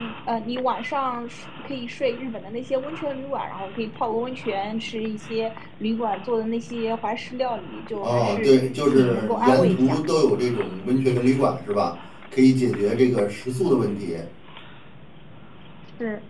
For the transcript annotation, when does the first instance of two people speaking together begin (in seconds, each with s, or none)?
8.0 s